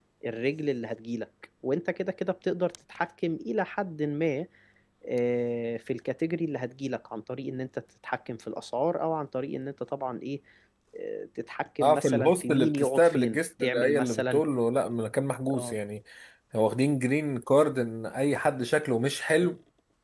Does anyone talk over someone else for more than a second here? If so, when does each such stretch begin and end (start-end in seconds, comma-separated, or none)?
11.8-14.4